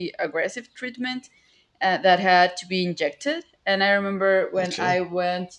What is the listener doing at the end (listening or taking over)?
listening